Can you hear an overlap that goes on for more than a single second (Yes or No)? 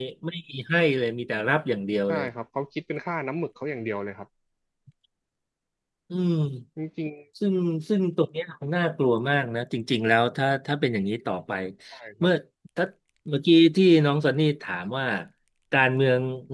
No